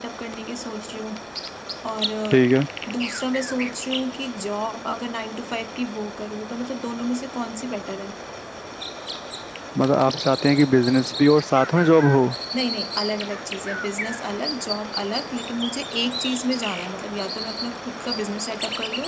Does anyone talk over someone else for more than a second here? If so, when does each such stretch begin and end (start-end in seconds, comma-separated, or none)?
none